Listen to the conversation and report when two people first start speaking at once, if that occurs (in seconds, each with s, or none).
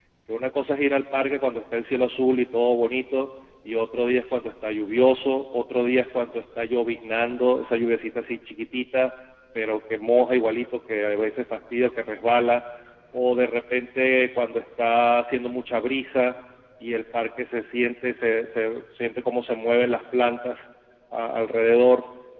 none